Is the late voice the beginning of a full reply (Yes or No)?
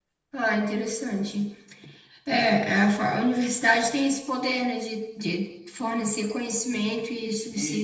Yes